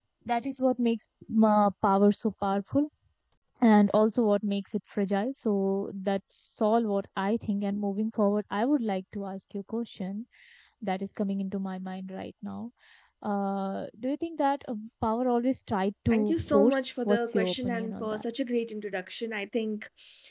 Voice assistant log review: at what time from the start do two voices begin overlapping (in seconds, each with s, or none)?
16.1 s